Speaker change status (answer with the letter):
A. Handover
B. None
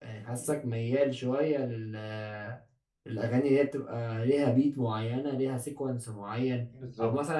B